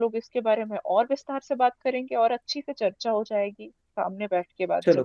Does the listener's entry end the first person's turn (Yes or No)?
Yes